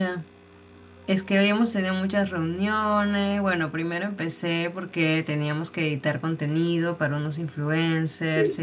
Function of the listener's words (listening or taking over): listening